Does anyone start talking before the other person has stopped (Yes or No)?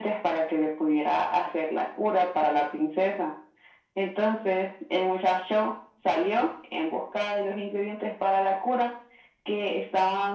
No